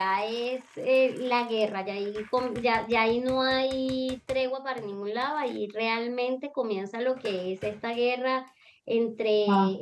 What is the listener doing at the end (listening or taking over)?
listening